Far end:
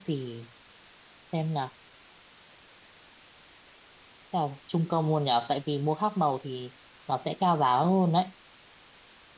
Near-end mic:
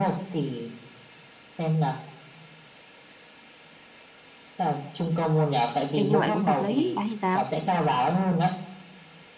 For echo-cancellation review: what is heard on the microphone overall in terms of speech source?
both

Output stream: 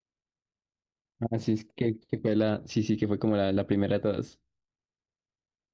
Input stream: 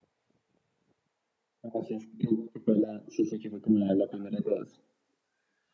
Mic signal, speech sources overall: echo only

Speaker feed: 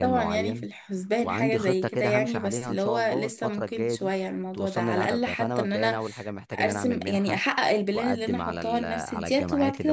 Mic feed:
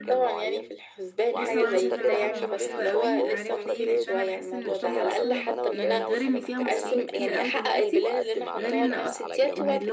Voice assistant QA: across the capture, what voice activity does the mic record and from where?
both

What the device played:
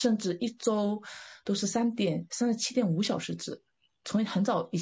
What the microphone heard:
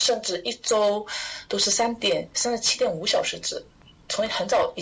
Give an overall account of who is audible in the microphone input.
echo only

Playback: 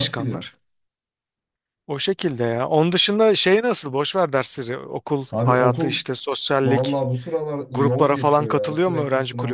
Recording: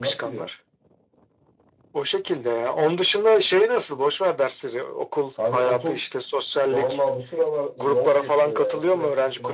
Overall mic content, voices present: echo only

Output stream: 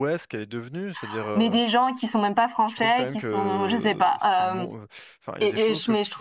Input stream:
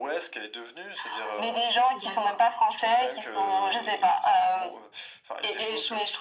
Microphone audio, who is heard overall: both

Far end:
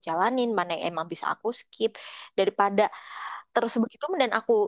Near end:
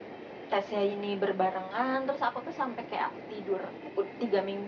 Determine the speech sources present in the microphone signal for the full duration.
user only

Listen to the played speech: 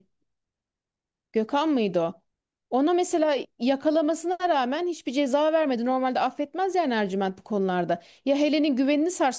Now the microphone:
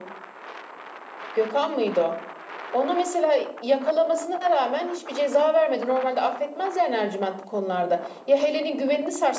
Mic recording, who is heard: echo only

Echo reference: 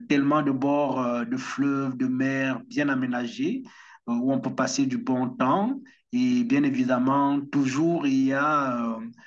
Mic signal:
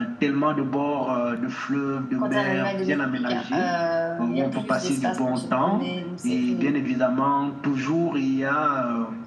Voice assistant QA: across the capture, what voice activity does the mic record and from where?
both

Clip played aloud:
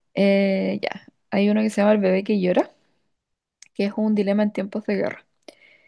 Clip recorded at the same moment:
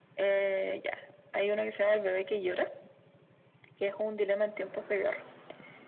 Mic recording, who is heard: echo only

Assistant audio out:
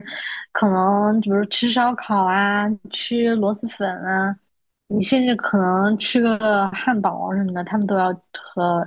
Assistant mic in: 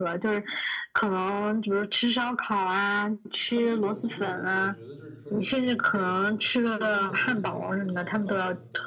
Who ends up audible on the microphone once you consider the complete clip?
both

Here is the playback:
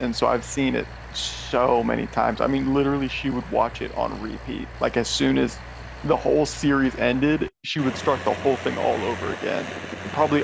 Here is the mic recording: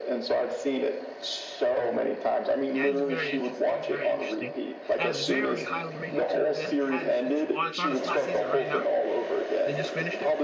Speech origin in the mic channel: both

